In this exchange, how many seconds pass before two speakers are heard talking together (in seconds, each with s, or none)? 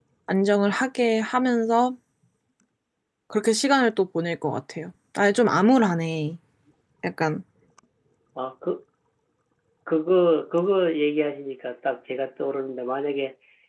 none